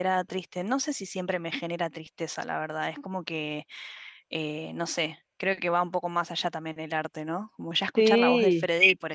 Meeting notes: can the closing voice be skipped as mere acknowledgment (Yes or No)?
Yes